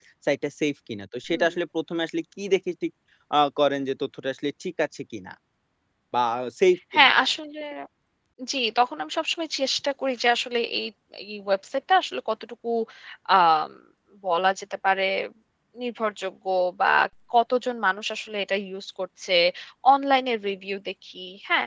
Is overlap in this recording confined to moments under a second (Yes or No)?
Yes